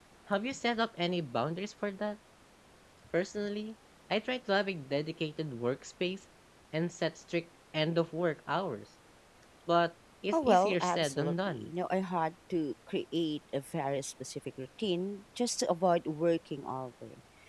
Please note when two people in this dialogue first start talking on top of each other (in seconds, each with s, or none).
10.3 s